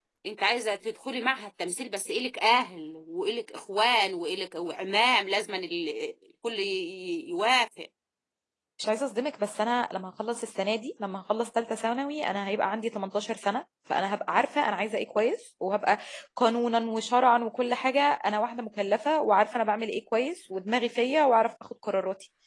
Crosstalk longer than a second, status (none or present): none